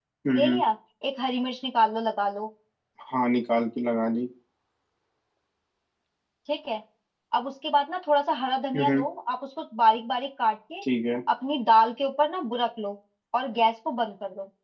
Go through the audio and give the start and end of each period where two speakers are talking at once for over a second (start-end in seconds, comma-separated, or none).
none